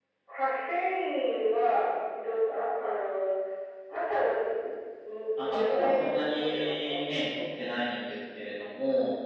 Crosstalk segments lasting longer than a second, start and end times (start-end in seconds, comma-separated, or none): 5.4-7.0